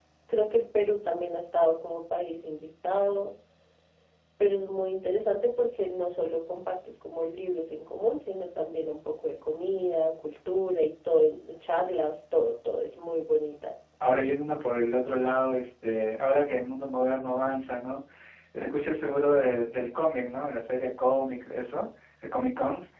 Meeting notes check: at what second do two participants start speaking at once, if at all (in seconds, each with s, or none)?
none